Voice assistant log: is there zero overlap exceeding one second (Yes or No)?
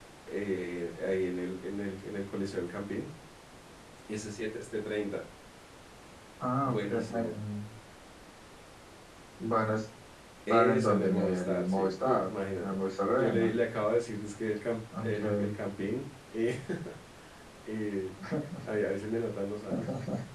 No